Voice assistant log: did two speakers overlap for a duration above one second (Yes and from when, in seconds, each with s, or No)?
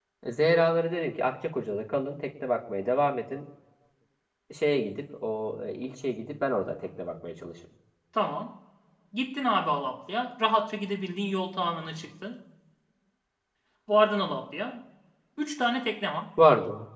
No